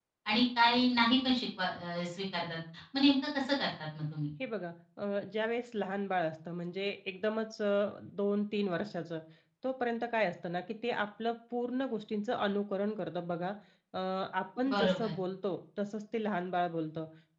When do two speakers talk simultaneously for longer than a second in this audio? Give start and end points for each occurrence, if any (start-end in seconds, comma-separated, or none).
none